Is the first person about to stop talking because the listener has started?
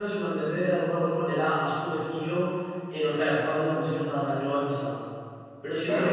Yes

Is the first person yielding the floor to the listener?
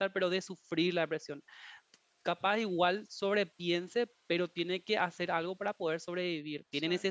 No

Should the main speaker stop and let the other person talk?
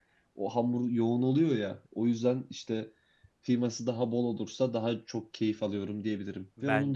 No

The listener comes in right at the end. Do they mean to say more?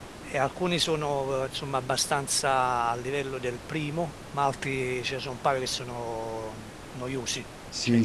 Yes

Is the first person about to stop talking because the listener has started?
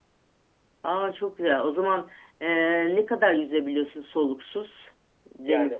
Yes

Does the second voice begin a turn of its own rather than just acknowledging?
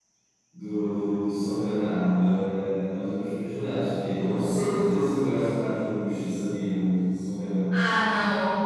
Yes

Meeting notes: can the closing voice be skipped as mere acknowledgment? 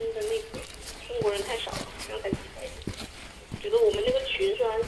Yes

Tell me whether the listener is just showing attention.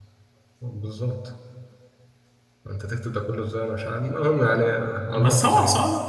No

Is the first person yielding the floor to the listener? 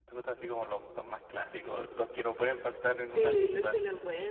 Yes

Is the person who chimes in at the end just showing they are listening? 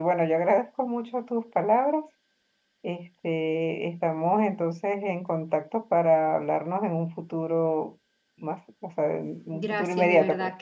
No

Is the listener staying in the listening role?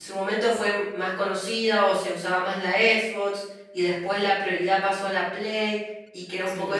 Yes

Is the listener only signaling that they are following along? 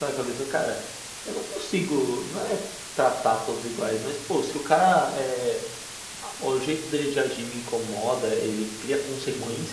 Yes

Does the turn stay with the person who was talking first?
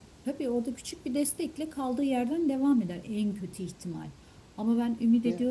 Yes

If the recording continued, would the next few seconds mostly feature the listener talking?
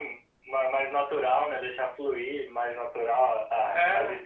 No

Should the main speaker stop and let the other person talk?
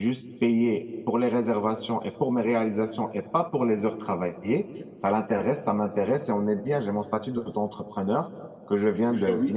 No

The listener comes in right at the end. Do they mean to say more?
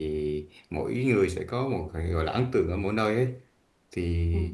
No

